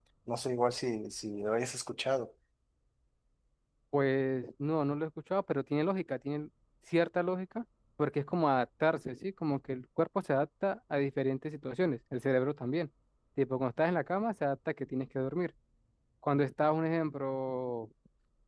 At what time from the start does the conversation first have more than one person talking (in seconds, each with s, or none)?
none